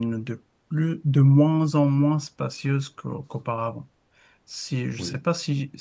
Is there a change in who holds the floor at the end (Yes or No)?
No